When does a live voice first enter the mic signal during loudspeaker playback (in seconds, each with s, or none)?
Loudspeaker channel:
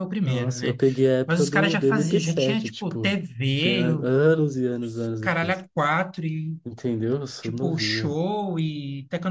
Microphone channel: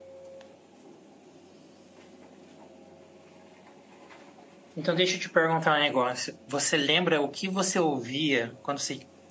4.7 s